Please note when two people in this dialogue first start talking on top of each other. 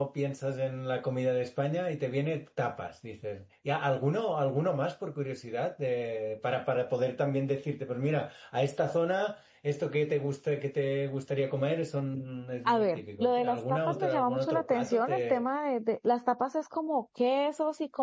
13 s

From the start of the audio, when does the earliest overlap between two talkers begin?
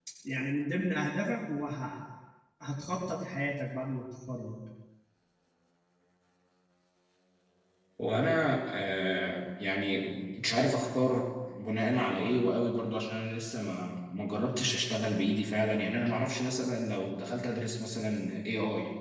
none

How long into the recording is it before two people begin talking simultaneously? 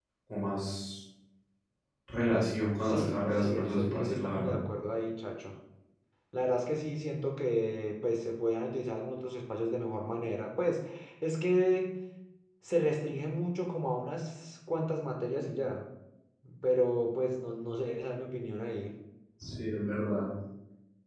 3 s

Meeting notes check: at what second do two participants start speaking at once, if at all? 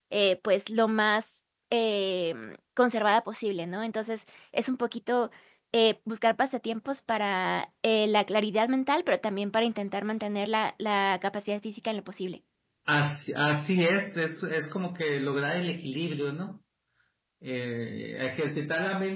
none

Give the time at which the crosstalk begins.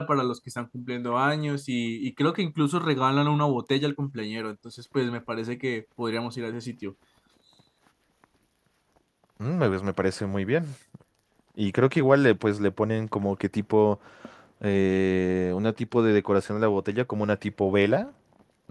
none

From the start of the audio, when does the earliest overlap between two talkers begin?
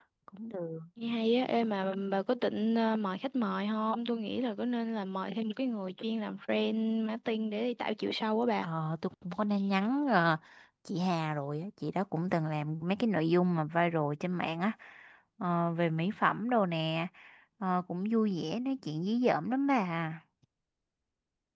none

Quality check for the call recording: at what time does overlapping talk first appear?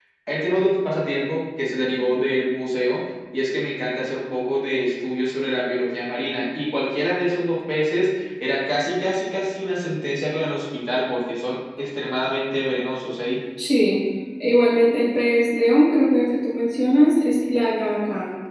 none

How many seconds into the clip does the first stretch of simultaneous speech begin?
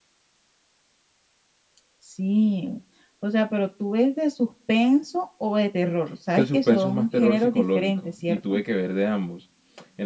6 s

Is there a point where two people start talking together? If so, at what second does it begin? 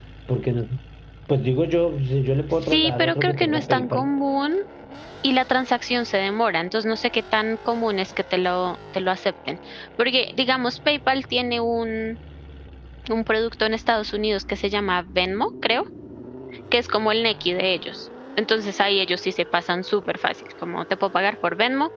3 s

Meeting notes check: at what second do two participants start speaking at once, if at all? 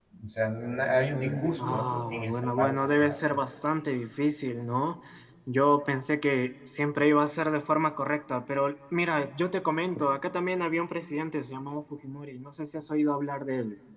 2 s

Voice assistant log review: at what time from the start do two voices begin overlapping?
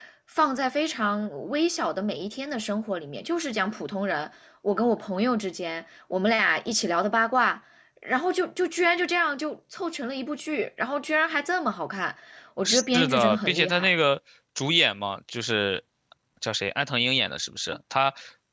13 s

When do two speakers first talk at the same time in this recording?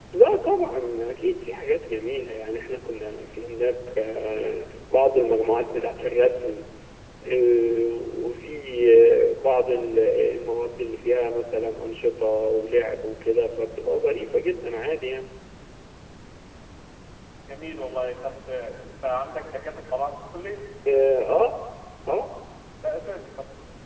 none

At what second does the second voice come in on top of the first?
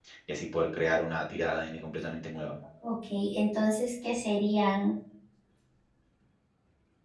none

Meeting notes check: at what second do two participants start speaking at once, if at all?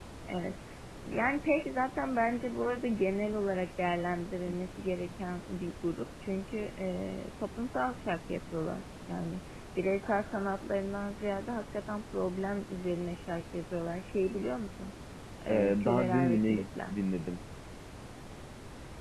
15 s

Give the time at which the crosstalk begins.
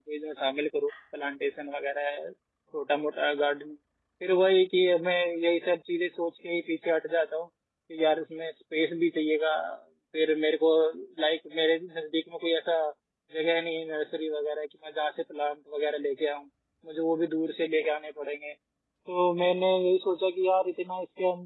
none

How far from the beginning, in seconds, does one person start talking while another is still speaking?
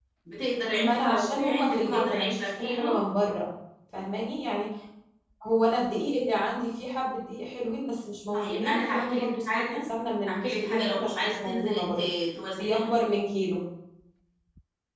1 s

